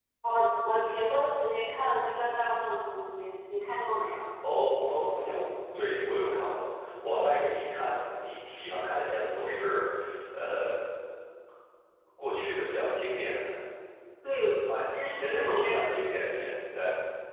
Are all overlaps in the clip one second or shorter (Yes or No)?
No